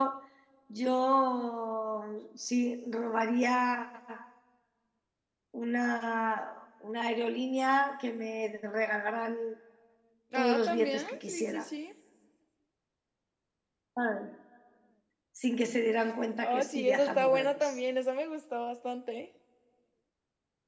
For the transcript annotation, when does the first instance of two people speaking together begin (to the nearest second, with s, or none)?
10 s